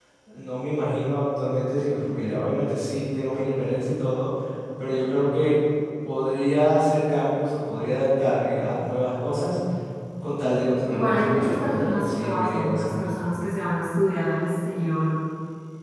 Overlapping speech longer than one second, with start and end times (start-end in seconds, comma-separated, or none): 10.9-13.2